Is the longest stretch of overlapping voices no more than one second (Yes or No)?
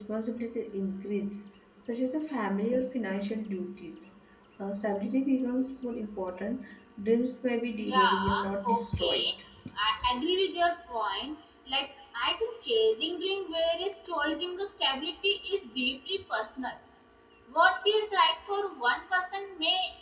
No